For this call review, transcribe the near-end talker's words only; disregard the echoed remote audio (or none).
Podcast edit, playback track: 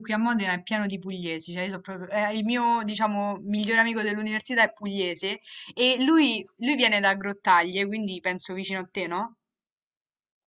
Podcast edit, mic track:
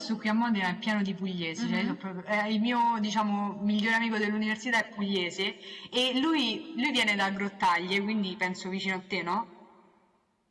Mhm,